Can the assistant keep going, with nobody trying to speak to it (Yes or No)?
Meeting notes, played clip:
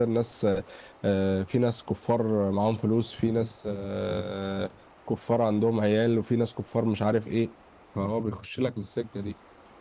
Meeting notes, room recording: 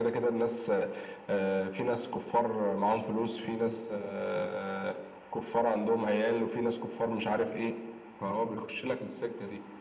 Yes